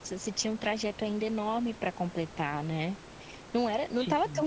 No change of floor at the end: Yes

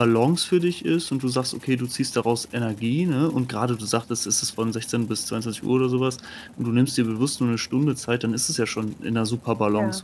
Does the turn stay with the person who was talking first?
Yes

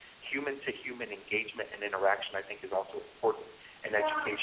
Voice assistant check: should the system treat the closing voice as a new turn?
No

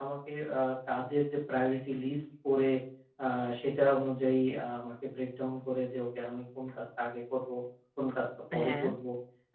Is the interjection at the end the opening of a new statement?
No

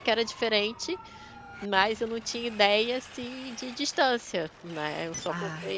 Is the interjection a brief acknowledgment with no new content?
Yes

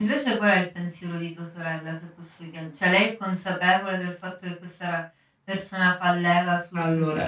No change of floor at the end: No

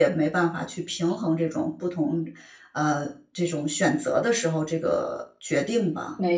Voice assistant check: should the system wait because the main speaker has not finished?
No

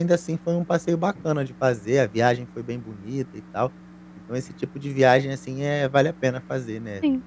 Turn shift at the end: Yes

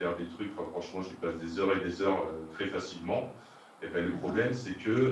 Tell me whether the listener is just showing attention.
Yes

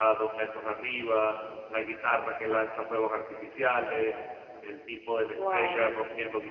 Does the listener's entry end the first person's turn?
No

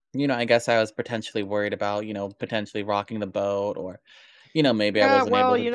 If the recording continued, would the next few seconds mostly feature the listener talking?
Yes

